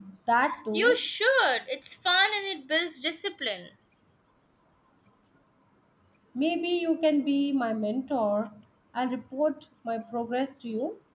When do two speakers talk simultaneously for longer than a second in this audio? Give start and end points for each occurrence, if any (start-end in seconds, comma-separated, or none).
none